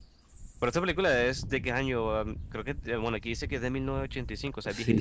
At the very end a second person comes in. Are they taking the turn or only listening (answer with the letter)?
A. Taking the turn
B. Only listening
A